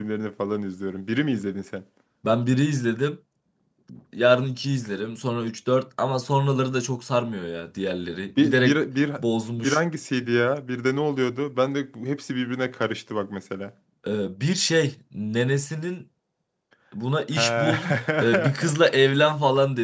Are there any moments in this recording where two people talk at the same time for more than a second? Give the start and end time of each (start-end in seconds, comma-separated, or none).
none